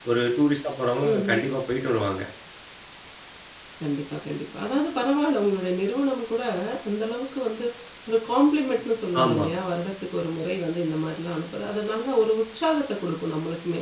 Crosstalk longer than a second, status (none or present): none